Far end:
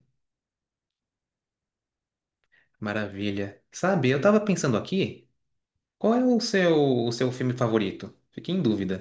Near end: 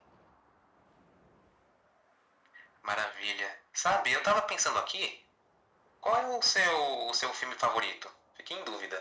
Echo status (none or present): present